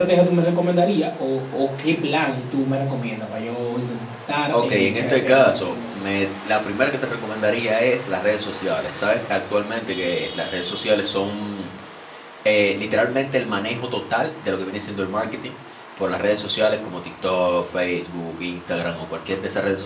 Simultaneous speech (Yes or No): Yes